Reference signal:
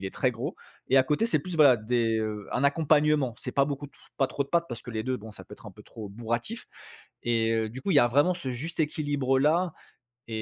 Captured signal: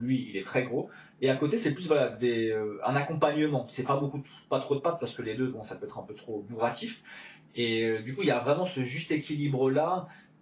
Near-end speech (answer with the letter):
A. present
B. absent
B